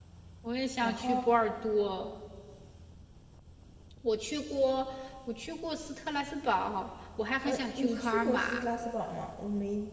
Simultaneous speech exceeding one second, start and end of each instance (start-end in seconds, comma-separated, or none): 7.4-8.7